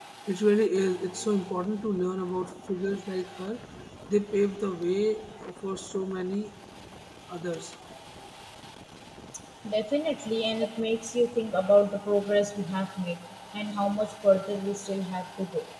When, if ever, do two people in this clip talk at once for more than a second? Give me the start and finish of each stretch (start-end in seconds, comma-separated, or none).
none